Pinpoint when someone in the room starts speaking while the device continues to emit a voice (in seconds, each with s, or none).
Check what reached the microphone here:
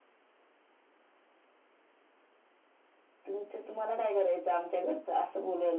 3.2 s